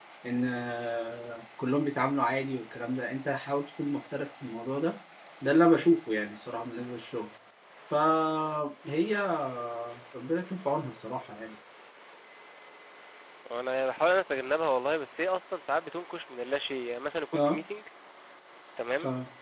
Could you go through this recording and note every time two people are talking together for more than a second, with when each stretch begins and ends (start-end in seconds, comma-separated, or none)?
none